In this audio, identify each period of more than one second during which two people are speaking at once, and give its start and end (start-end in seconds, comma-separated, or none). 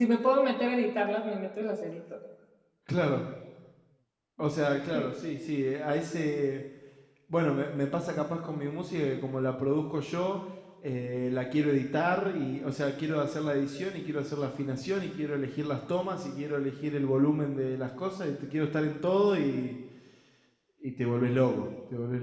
none